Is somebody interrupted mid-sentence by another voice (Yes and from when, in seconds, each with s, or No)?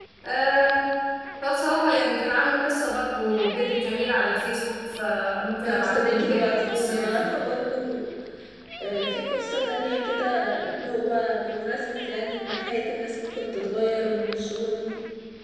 Yes, from 5.6 s